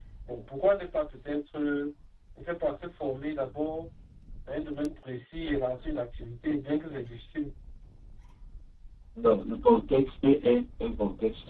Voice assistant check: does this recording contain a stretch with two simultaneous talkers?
No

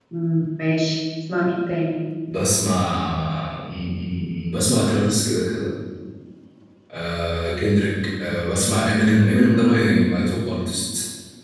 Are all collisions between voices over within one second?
Yes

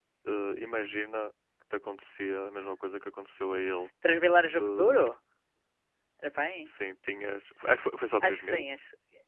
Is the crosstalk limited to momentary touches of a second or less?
Yes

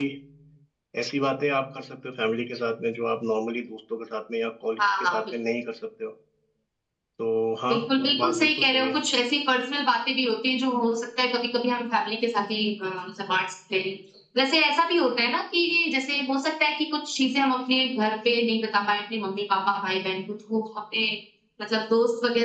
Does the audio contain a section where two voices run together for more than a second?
Yes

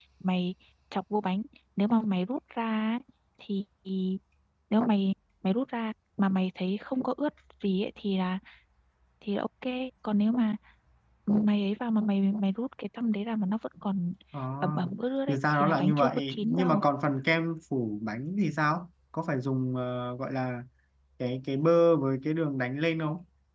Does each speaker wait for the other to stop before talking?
No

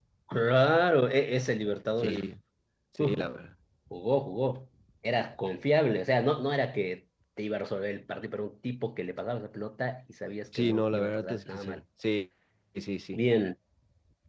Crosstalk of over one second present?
Yes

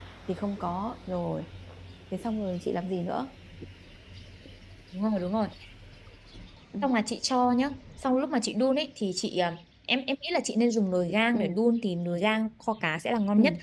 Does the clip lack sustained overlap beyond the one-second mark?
Yes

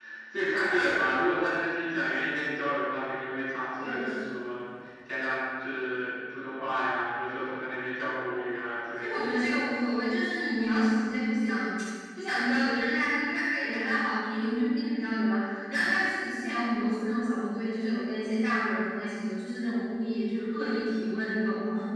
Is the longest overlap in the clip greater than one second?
No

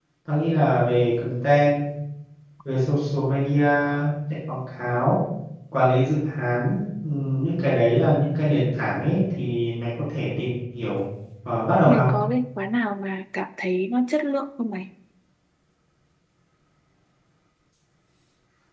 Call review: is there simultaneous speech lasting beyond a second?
No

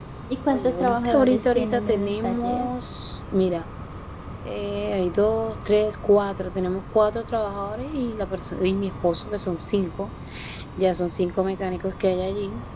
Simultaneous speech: Yes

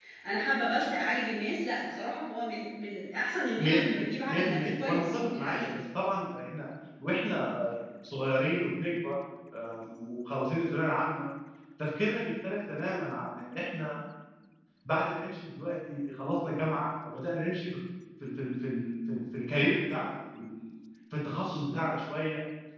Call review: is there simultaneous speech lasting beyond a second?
Yes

